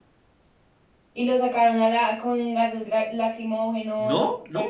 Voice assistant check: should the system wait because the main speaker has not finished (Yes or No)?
No